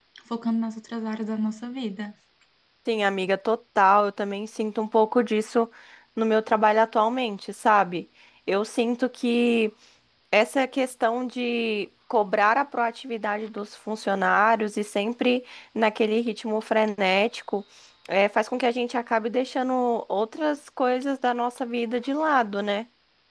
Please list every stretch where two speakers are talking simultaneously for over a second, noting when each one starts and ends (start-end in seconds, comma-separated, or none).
none